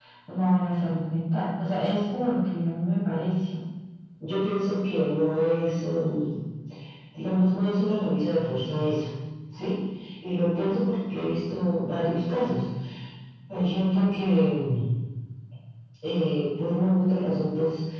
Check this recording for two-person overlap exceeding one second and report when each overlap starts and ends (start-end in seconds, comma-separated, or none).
none